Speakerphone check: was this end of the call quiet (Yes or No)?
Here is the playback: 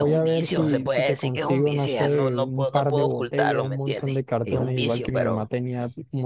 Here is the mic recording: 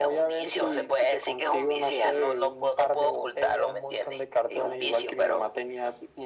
Yes